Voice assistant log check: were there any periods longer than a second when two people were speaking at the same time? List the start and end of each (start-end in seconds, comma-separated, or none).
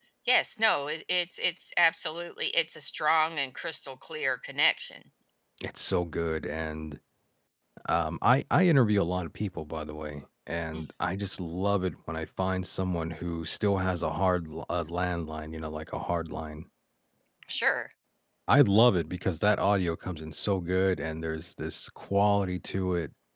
none